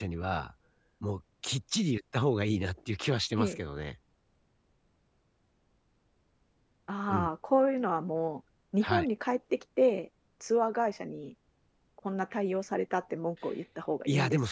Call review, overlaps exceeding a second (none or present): none